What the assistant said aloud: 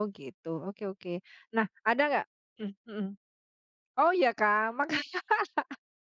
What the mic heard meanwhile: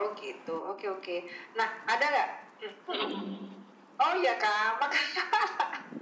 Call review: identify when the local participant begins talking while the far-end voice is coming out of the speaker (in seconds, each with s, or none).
2.9 s